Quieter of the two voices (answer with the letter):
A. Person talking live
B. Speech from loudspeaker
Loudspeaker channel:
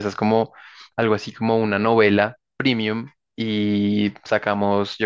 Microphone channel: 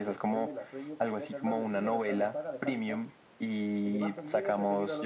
A